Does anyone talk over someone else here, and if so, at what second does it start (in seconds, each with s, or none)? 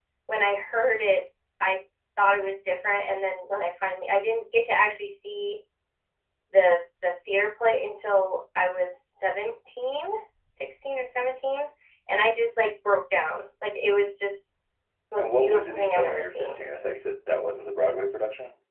15.2 s